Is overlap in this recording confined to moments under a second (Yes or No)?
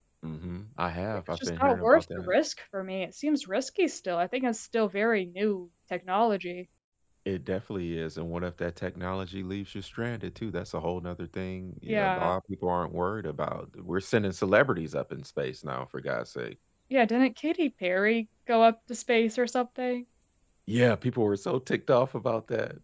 No